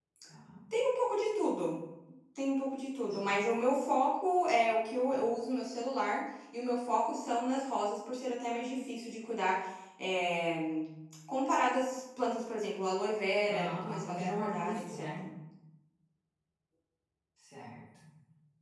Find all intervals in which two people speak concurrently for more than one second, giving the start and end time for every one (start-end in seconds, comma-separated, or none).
13.5-15.2